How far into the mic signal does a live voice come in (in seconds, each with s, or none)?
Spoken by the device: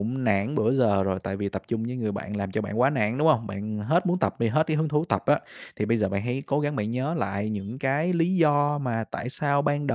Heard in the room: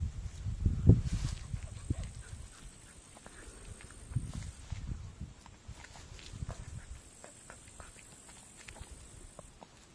none